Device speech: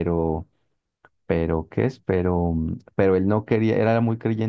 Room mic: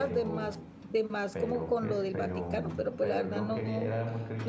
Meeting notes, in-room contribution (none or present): present